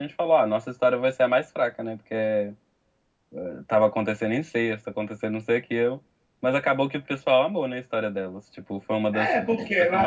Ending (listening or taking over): taking over